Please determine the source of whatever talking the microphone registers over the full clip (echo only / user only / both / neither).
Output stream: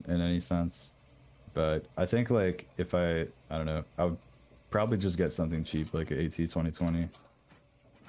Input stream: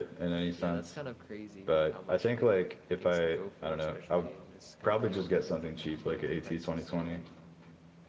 both